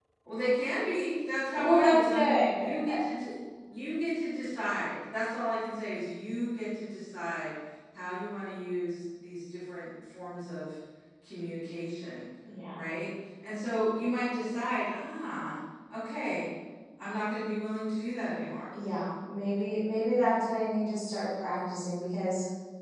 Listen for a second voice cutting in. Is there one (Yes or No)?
Yes